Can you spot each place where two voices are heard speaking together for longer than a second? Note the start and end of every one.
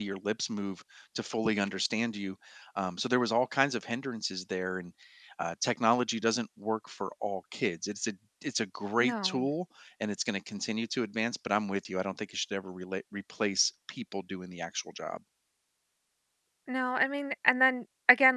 none

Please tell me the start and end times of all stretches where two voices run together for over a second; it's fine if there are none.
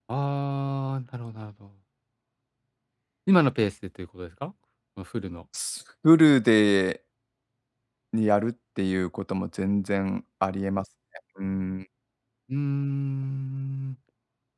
none

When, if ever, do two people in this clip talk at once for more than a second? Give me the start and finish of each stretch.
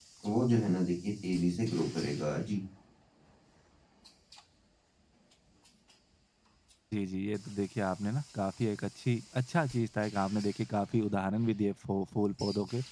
none

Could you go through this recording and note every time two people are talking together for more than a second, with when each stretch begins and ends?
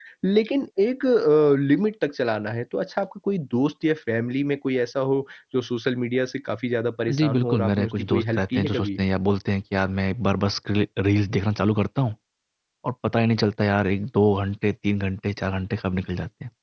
7.1-9.0

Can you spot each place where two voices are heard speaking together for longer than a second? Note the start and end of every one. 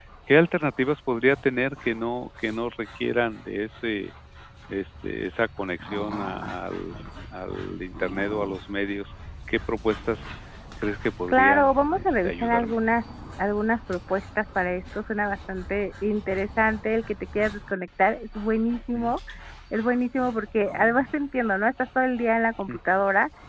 11.3-12.8

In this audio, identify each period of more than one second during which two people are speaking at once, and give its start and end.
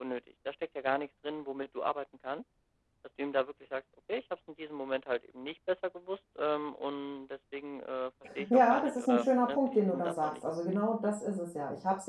8.5-10.8

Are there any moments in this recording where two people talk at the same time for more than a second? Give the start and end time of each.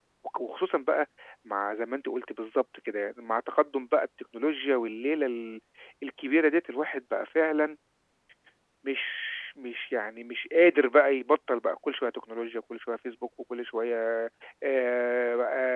none

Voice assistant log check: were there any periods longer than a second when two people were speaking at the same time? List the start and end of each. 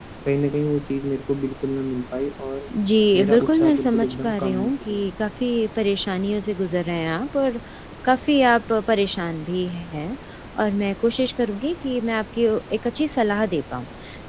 3.2-5.0

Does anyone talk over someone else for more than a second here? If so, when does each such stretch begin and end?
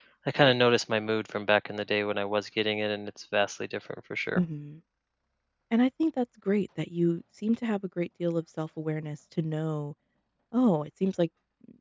none

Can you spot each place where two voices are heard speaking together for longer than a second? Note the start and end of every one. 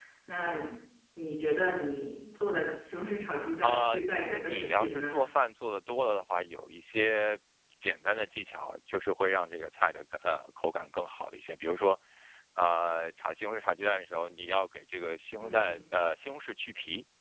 3.6-5.2

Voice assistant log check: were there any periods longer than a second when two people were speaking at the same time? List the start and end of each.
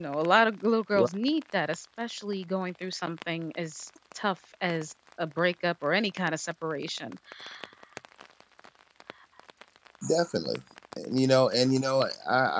none

